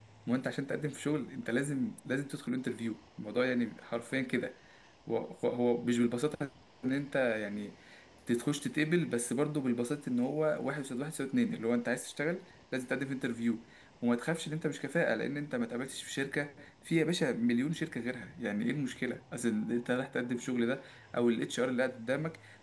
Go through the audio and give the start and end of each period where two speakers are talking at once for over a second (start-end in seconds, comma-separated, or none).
none